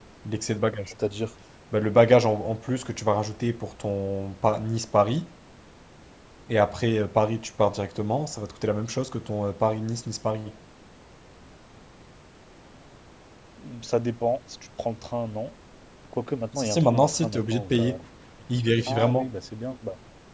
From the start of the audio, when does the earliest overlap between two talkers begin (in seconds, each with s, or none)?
16.6 s